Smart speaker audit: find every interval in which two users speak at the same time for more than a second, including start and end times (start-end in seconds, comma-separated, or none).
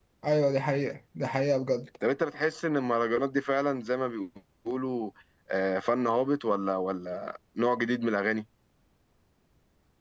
none